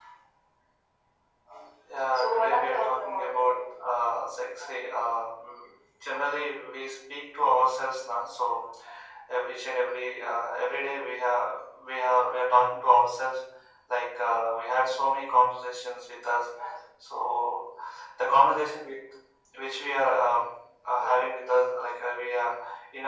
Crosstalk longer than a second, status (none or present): present